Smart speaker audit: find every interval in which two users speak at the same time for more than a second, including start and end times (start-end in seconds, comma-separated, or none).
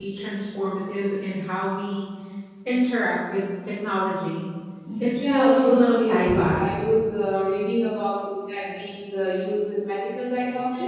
5.2-6.7